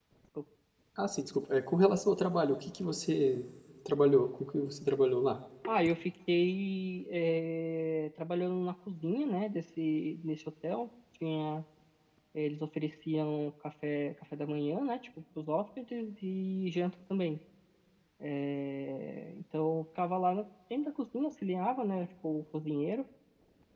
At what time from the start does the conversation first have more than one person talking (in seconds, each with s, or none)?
none